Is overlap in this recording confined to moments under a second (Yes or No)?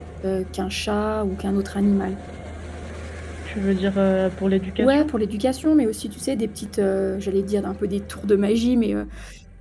Yes